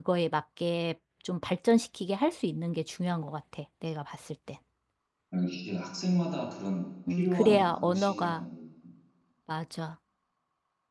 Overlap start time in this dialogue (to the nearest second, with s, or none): 7 s